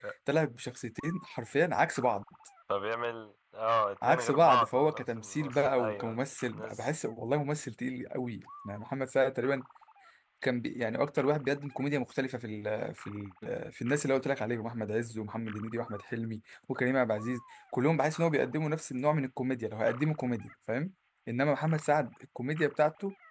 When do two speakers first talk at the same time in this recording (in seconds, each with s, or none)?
4.0 s